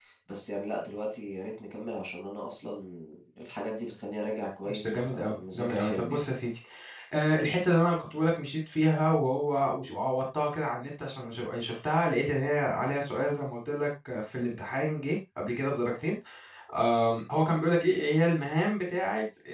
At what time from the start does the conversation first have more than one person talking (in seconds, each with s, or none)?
4.6 s